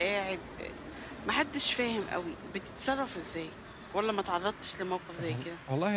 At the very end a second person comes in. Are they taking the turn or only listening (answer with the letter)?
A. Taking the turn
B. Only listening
A